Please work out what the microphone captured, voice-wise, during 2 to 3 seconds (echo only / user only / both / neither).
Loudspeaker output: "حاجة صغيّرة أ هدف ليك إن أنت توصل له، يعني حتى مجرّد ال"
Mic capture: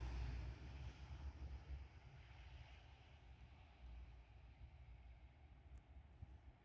neither